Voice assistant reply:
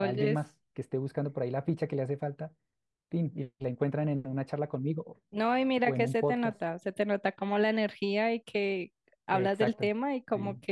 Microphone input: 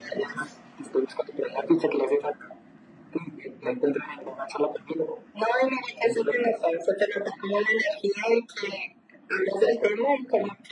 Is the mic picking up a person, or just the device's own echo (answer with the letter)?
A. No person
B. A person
A